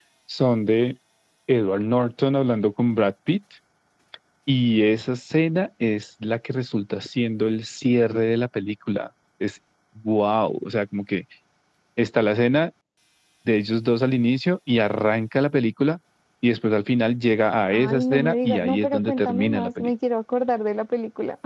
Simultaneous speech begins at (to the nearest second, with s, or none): 18 s